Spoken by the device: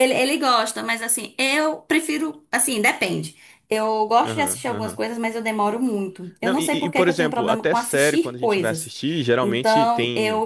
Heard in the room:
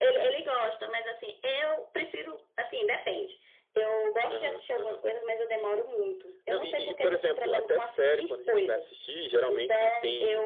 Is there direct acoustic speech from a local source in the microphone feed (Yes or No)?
No